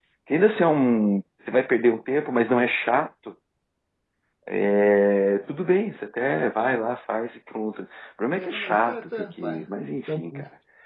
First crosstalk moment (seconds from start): 8.3 s

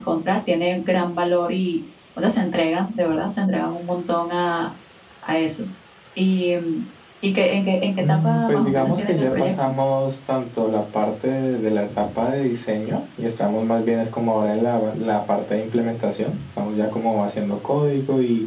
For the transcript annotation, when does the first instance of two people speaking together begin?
8.0 s

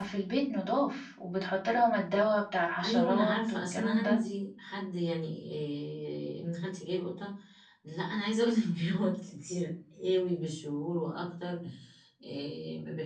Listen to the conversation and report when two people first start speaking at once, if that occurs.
2.8 s

